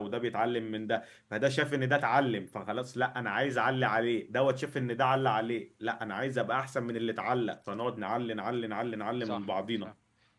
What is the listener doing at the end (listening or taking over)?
taking over